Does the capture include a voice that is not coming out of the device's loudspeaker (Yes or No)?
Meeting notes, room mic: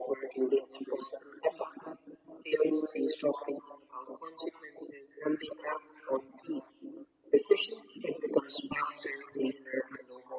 No